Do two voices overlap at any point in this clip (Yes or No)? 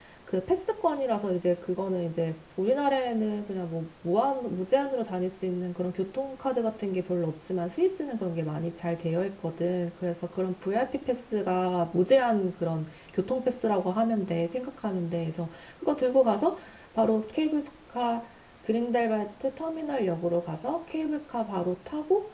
No